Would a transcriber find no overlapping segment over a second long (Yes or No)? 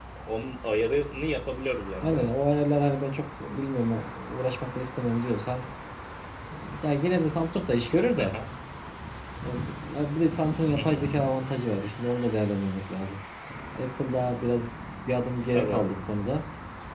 Yes